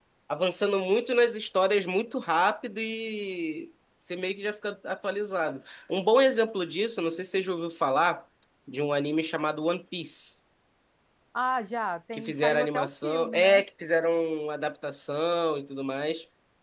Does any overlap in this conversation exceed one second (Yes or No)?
Yes